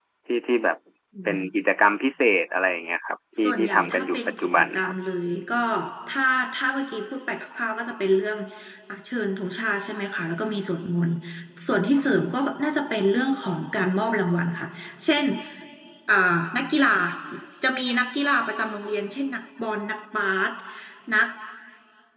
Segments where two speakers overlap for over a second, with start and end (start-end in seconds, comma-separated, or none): 3.4-4.9